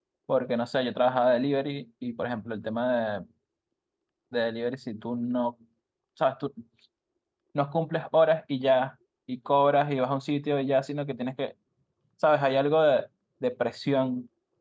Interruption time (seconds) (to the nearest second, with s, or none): none